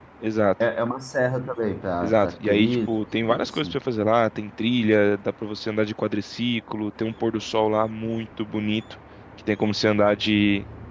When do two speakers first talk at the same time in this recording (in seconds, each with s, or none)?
2.0 s